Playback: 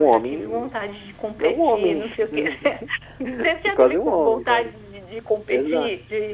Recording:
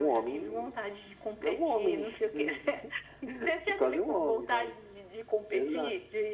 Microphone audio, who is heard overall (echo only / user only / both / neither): echo only